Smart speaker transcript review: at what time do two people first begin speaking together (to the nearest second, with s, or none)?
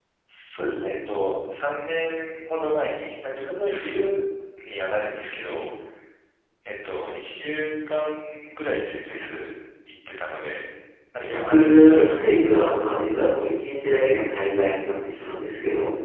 11 s